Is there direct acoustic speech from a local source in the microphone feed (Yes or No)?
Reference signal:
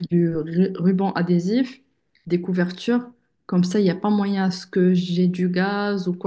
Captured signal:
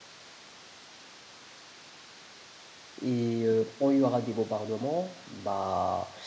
Yes